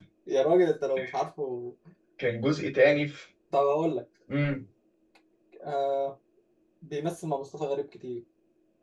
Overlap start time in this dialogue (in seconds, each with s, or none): none